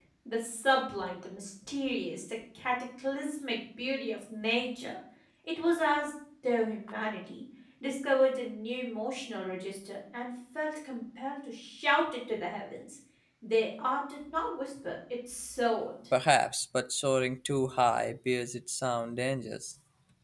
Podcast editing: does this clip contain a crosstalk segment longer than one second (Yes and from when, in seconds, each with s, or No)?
No